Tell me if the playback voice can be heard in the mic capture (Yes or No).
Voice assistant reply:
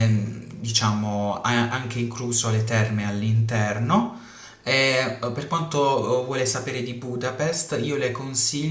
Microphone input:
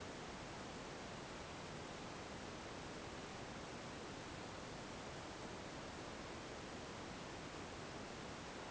No